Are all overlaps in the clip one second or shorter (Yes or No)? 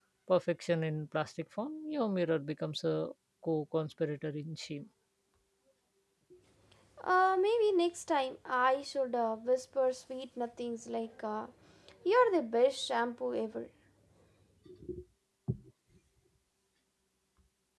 Yes